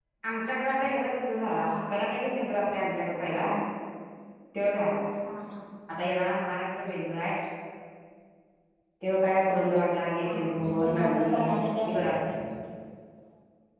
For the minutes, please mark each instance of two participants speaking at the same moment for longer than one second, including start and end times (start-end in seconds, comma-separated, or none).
10.2-11.5